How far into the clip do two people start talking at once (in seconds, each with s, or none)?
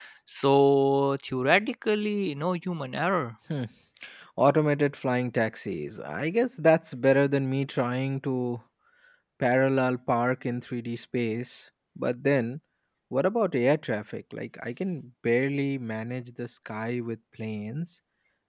none